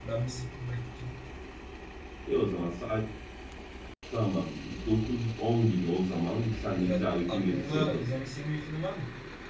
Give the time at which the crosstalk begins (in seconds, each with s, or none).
6.7 s